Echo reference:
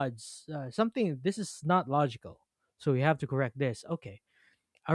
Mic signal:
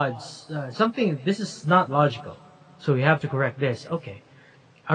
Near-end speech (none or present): none